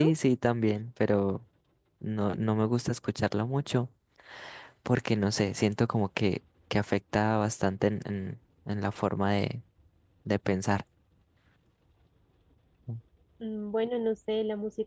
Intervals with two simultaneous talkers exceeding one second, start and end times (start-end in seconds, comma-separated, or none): none